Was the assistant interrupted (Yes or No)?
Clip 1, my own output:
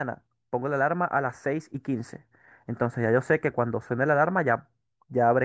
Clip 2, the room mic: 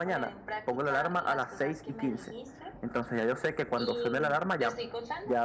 Yes